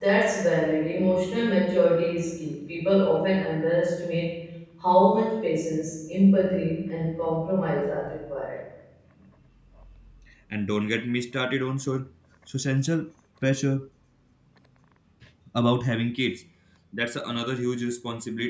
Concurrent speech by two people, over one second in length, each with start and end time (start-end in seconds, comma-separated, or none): none